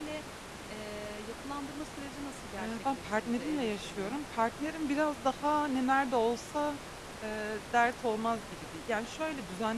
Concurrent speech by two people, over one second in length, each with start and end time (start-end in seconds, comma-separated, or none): 2.6-4.2